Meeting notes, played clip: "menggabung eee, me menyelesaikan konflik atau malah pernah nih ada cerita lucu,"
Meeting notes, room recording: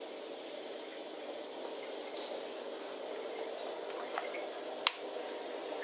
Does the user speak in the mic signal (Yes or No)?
No